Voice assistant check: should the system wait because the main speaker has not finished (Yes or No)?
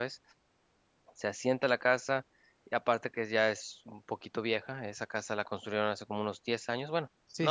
No